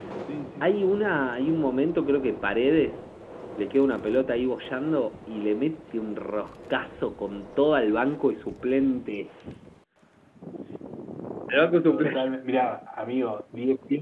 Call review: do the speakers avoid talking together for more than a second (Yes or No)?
Yes